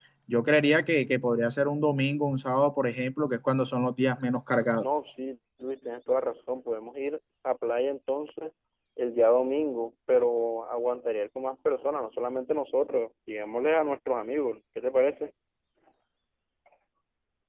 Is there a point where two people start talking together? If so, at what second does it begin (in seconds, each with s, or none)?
none